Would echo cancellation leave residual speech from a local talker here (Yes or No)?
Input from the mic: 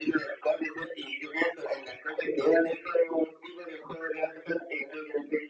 No